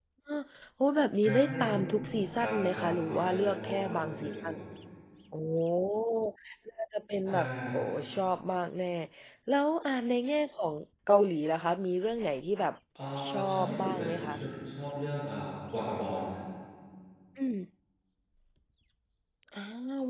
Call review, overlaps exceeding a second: present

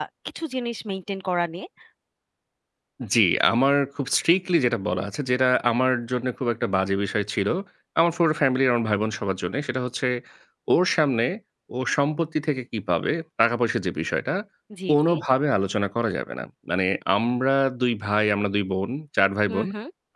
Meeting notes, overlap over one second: none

